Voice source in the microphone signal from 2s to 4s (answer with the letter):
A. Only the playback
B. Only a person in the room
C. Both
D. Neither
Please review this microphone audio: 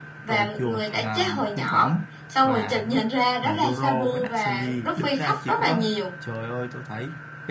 C